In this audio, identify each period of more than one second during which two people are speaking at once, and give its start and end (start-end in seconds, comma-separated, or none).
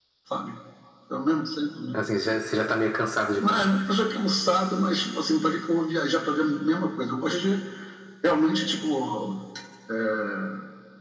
none